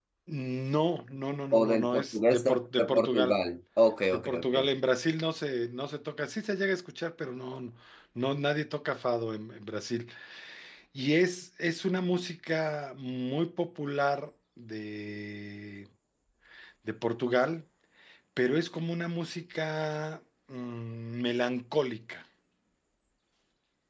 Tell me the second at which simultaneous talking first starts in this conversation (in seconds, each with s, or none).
1.6 s